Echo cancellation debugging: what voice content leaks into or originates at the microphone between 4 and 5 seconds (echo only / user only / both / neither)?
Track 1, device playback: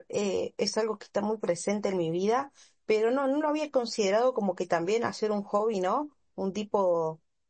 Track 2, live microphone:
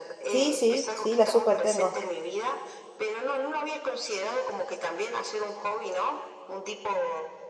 echo only